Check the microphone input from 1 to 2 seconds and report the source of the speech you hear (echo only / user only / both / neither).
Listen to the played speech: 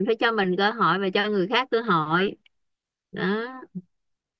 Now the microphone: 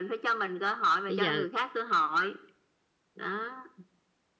both